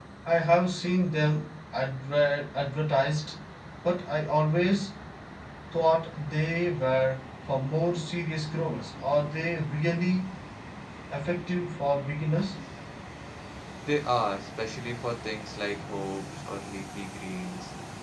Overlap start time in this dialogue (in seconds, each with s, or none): none